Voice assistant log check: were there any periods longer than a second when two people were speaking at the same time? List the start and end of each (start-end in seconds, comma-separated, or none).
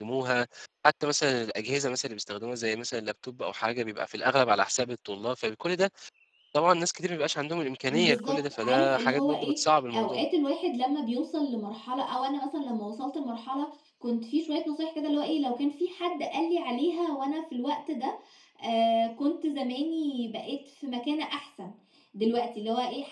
7.9-9.6